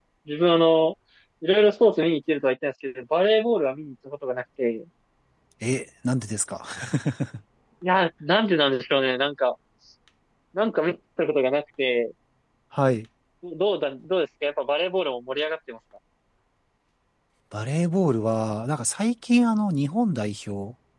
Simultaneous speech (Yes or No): No